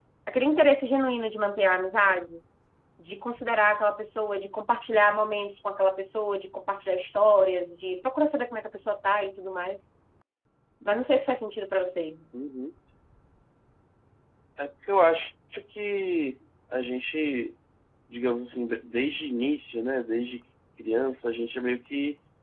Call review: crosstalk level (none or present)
none